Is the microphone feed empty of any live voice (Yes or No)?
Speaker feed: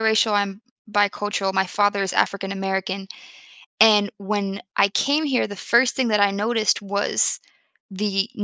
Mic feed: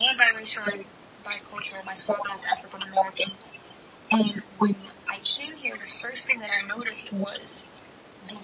Yes